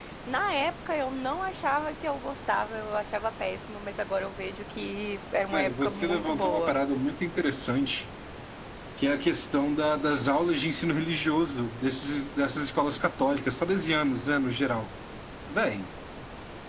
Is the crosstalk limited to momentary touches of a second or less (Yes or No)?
No